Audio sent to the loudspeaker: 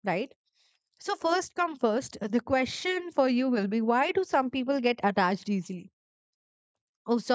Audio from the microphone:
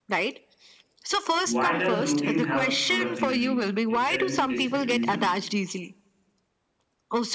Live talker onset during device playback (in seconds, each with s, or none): 1.4 s